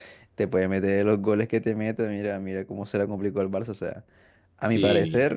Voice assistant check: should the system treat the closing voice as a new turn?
No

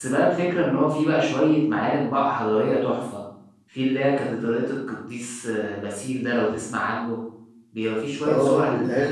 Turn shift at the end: Yes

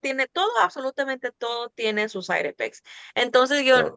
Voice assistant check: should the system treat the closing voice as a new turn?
No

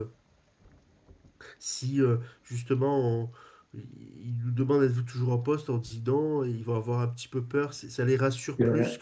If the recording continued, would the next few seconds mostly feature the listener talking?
No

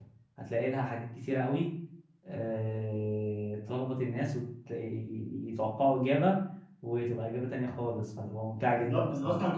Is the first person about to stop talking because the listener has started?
Yes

